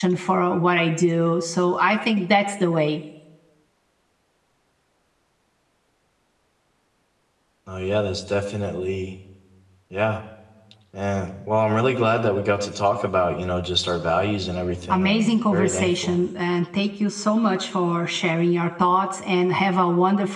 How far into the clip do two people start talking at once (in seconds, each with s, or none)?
14.9 s